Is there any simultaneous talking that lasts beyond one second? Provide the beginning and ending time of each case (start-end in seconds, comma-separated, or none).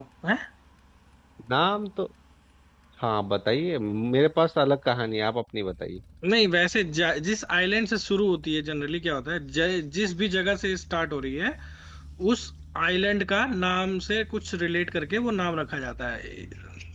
none